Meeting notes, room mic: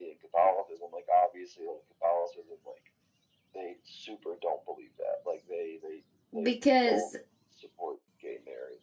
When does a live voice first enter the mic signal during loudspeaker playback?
6.4 s

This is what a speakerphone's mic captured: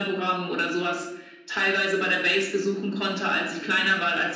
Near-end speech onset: none

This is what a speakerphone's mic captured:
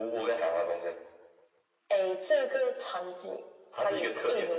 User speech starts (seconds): none

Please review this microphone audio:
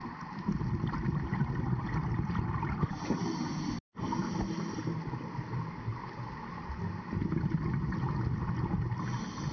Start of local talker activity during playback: none

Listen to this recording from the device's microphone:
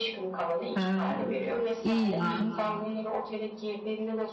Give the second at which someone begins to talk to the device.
0.7 s

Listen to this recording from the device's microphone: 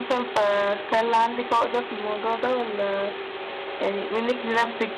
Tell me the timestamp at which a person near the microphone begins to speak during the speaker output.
none

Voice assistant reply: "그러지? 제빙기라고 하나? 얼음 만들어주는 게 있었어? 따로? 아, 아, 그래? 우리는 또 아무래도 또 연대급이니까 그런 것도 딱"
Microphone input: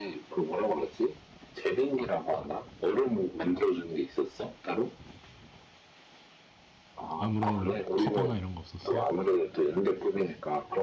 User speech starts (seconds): 7.2 s

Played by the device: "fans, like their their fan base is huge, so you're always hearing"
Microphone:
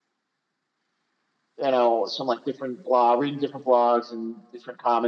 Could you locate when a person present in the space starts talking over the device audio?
1.6 s

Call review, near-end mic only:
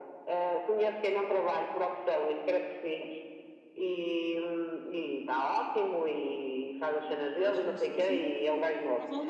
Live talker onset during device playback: 7.3 s

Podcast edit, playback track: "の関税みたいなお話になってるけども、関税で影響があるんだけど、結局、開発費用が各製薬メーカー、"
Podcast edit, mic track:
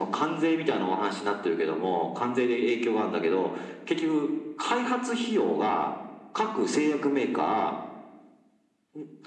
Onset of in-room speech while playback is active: none

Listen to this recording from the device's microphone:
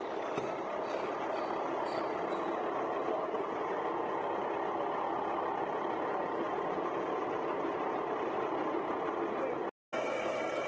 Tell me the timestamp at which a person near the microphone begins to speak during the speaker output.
none

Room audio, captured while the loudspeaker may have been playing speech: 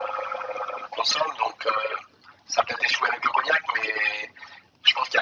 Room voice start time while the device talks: none

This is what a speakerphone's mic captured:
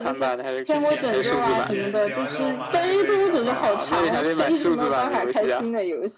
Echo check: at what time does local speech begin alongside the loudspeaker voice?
0.6 s

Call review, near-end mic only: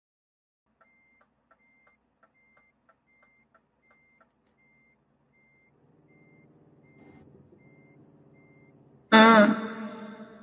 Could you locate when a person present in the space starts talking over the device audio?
9.1 s

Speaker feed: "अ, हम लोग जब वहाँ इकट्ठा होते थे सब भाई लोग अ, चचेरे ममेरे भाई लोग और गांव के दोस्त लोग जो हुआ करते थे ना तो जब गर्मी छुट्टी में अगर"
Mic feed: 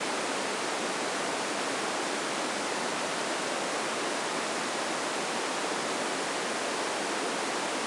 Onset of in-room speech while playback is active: none

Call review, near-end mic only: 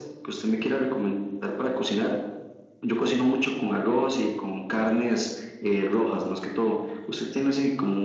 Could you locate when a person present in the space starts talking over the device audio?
none

